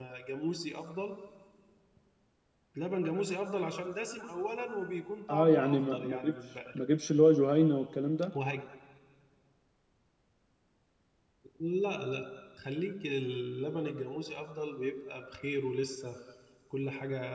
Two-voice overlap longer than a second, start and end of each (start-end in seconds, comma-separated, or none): 5.3-6.8